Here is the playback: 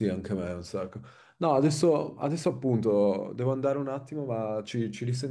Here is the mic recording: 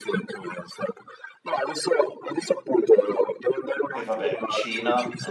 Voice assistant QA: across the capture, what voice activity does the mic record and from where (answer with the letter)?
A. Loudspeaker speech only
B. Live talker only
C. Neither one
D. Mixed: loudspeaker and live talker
D